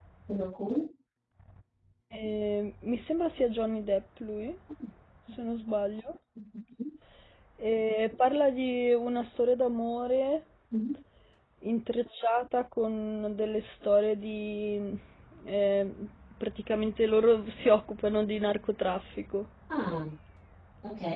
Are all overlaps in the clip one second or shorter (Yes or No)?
Yes